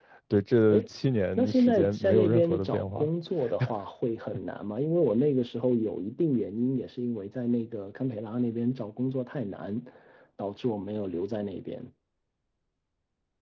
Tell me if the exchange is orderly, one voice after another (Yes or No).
No